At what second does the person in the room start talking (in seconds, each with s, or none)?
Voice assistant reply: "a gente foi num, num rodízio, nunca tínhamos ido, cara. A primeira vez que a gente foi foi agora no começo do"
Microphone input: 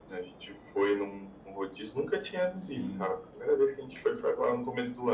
2.5 s